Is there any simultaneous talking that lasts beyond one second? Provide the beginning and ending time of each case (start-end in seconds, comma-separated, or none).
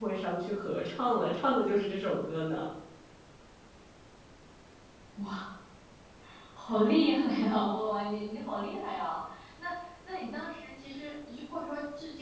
none